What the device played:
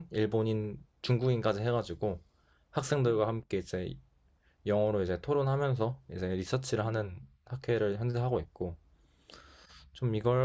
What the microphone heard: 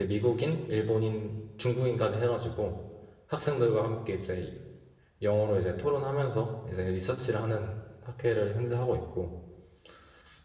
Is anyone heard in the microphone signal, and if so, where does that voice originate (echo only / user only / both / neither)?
echo only